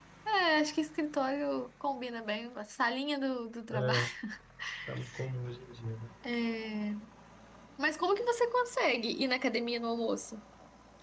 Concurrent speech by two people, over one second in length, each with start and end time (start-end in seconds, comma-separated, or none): none